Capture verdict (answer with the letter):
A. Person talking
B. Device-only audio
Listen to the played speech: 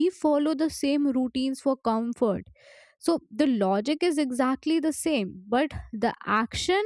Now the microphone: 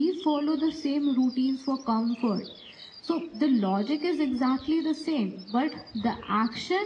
B